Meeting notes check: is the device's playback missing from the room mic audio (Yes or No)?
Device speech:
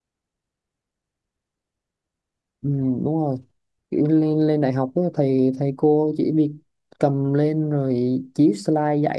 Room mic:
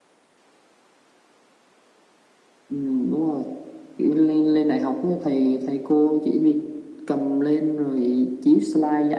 No